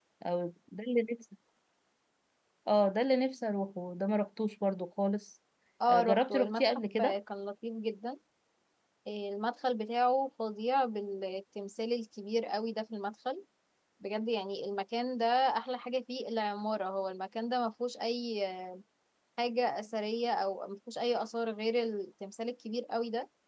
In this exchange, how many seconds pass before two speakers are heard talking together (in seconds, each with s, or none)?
5.9 s